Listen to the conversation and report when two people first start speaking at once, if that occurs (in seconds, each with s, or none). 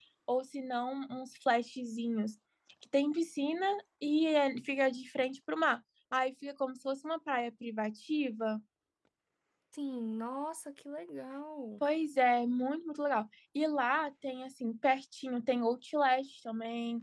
none